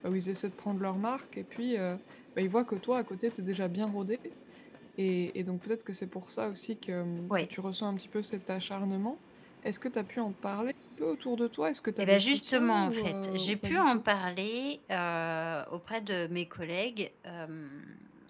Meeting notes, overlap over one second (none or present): present